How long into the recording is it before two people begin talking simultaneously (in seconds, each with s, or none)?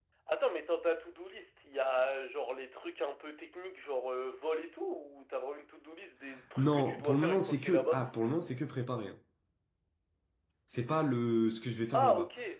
6.6 s